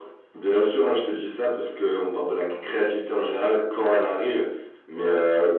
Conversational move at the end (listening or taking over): listening